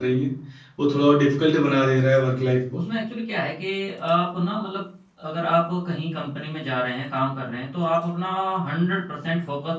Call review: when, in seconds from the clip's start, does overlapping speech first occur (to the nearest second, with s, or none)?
none